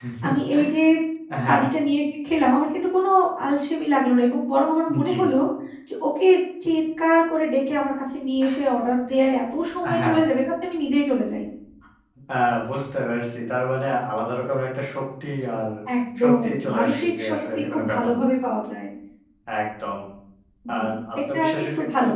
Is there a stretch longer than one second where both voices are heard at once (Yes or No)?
Yes